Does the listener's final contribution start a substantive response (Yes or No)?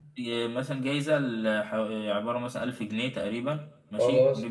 No